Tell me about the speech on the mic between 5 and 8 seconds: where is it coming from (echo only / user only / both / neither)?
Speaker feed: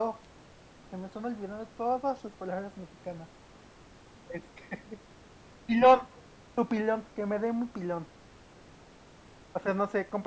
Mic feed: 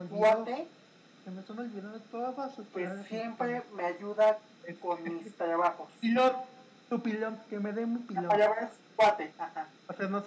both